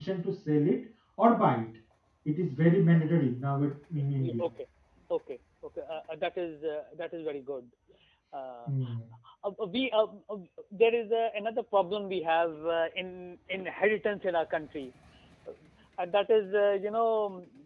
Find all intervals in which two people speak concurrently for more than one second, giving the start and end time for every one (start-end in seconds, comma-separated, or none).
none